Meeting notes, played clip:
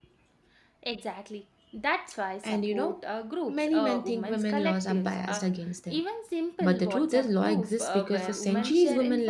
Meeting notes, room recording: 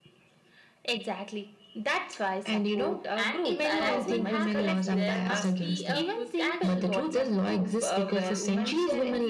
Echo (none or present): present